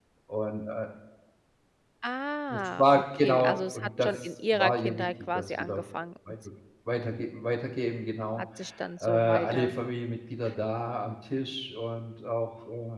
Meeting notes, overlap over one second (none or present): present